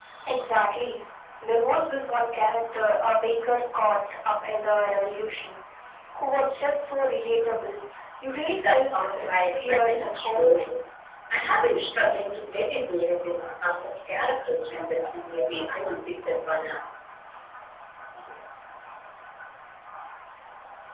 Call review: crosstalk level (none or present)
present